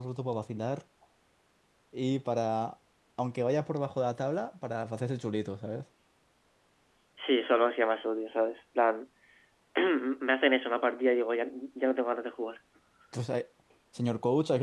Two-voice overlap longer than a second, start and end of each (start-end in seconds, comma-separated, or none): none